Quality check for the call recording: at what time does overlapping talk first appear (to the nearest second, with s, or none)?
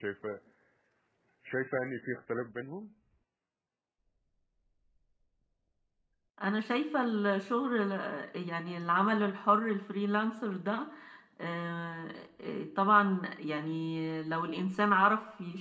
none